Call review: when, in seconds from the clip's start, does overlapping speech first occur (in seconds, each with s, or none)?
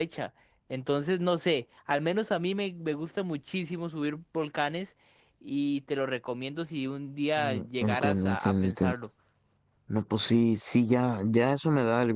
7.4 s